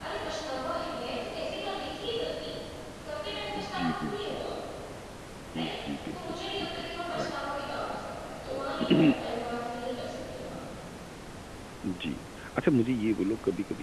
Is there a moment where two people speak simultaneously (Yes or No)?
Yes